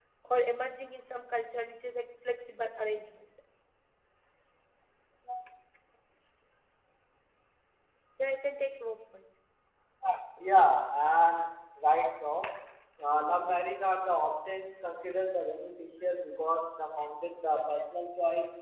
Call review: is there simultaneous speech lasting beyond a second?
No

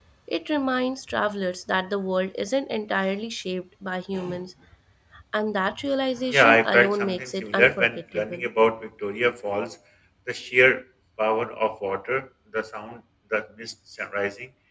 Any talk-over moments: Yes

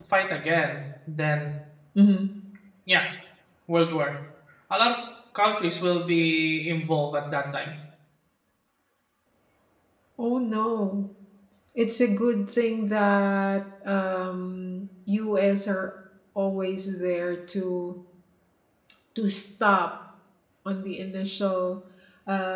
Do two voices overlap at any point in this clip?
No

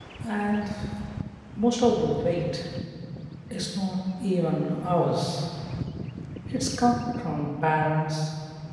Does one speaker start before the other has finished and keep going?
No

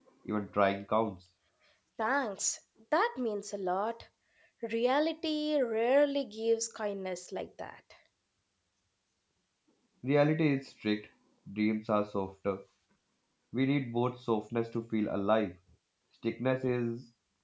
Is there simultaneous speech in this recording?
No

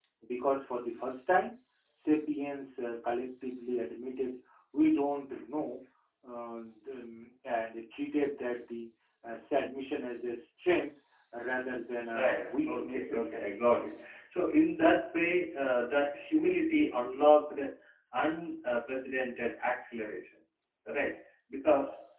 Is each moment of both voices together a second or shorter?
No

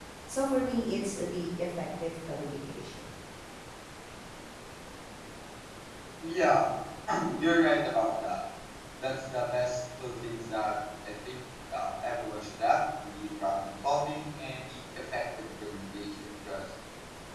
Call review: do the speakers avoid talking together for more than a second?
Yes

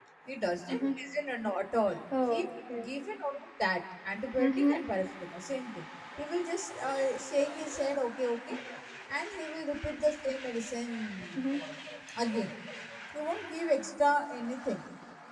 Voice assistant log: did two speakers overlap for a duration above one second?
No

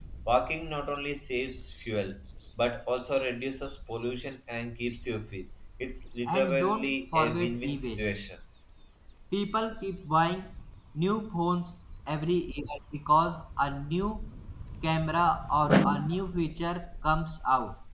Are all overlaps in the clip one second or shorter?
No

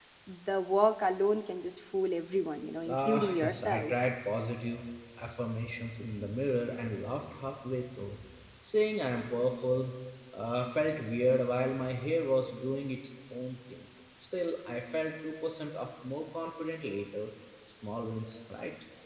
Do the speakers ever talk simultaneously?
Yes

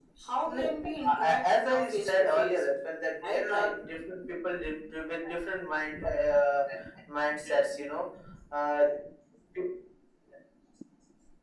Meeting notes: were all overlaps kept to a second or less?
No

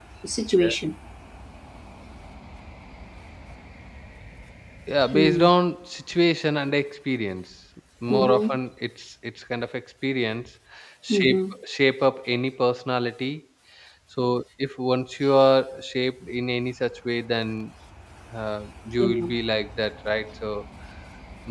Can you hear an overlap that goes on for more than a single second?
No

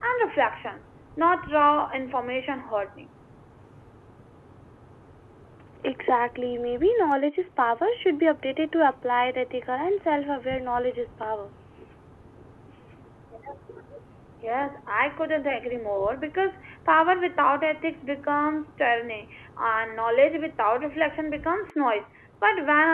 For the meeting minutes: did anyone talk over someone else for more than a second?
No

